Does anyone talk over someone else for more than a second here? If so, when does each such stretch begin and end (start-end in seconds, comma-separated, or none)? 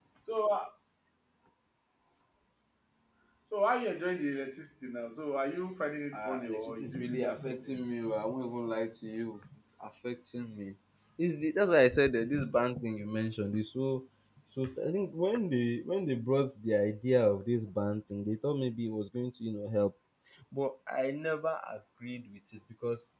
6.1-7.8